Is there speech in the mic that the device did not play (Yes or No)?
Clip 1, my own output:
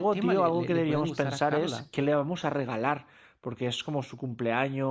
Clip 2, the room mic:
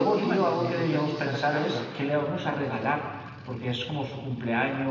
No